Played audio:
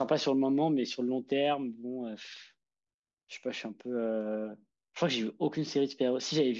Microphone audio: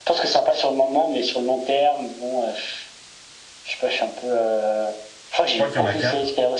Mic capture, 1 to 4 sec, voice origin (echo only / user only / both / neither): echo only